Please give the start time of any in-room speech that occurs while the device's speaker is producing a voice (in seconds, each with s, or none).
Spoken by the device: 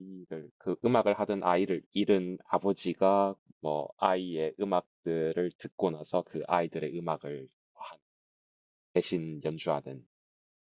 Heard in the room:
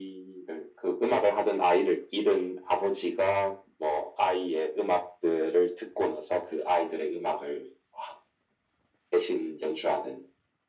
none